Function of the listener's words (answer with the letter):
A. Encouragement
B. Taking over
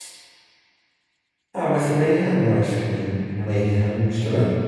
A